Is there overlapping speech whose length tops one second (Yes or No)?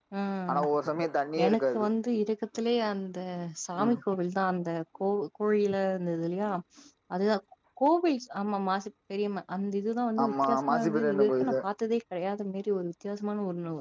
Yes